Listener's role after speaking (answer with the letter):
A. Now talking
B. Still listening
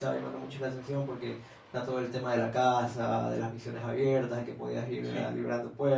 B